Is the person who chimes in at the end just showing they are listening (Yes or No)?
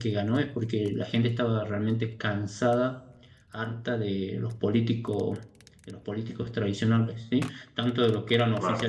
Yes